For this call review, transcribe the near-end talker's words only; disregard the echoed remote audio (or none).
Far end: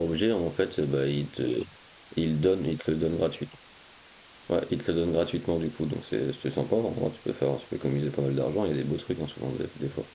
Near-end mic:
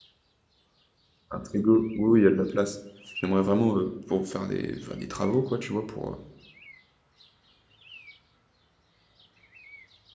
Un frigo. Oui, oui, il y a de la place. J'aimerais vraiment, heu, pour faire des faire des travaux, quoi, tu vois? Pour, heu,